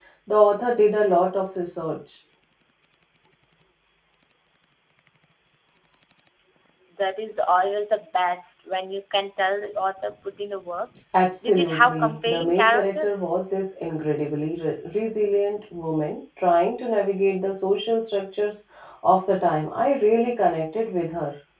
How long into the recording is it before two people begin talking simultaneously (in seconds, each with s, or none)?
11.4 s